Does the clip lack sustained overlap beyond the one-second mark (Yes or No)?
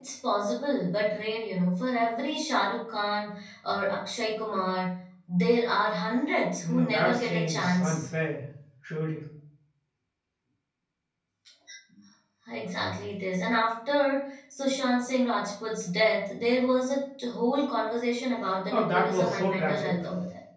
No